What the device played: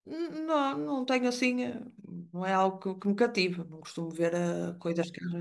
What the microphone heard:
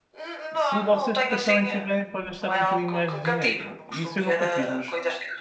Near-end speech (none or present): present